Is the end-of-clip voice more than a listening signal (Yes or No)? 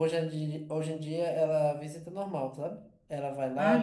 No